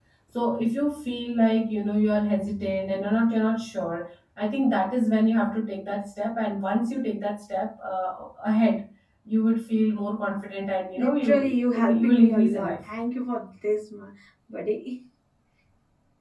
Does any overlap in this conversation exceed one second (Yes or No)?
Yes